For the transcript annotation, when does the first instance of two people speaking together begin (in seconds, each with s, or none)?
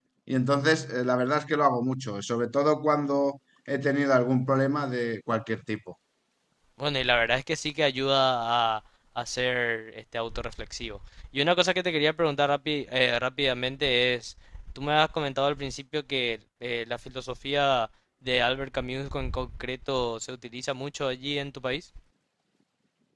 none